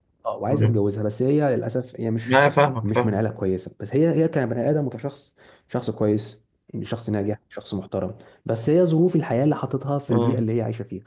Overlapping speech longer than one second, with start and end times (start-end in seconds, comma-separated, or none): none